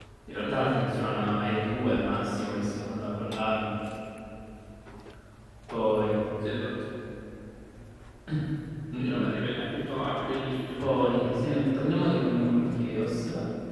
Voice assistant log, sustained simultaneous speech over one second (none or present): present